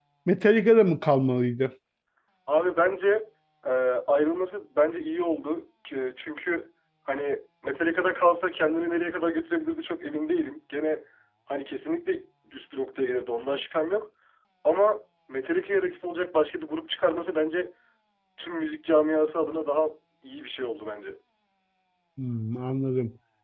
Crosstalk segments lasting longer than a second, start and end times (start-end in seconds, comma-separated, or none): none